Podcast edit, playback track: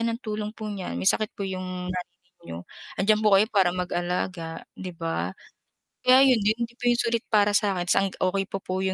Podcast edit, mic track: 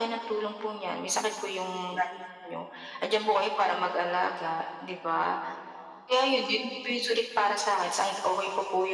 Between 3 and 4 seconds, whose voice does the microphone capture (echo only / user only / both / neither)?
echo only